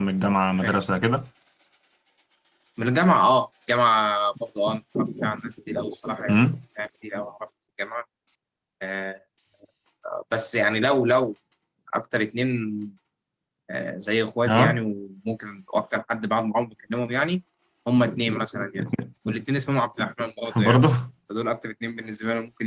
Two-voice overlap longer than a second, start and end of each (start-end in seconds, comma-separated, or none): none